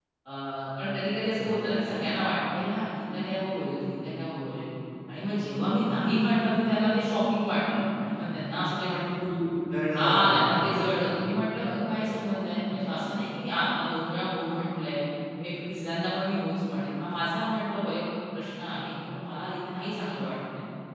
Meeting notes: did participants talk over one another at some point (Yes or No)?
Yes